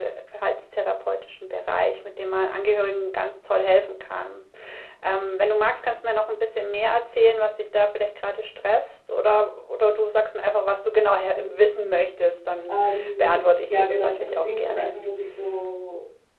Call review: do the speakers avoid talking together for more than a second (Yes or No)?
No